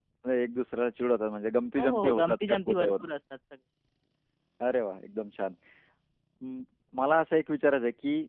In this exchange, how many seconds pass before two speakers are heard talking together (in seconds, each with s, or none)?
1.8 s